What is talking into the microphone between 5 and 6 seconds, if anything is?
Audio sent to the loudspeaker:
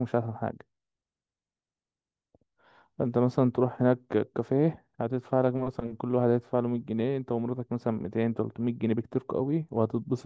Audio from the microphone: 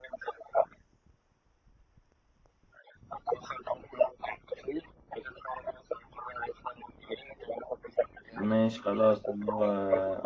echo only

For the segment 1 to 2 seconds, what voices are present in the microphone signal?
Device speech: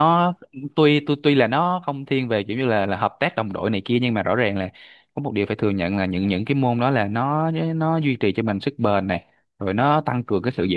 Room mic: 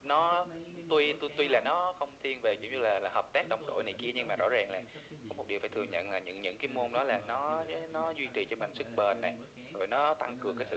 both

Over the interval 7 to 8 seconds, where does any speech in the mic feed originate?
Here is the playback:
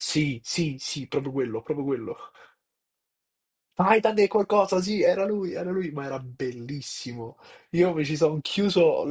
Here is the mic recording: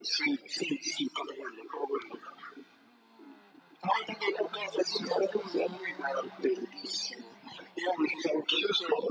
echo only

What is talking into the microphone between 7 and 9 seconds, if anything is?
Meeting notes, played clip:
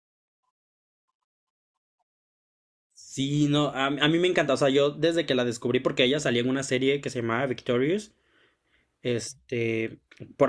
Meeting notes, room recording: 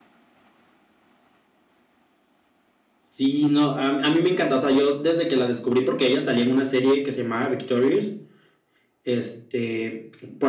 echo only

